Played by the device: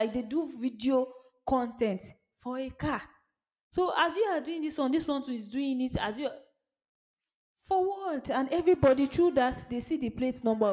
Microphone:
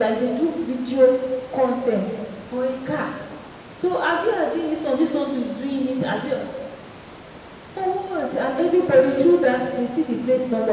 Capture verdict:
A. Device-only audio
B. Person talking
A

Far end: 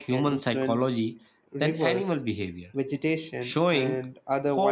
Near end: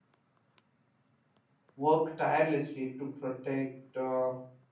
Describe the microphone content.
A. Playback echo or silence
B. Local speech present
B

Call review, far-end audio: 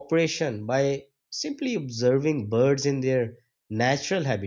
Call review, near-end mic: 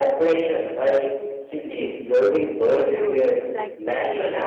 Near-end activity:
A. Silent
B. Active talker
B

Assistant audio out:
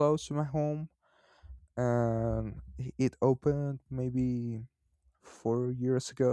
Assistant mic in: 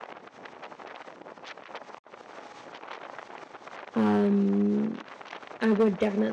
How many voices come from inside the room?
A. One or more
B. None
A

